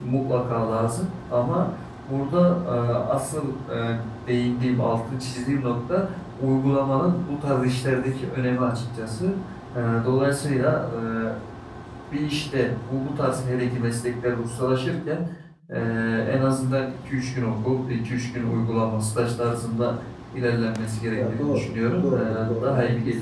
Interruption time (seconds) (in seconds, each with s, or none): 21.1 s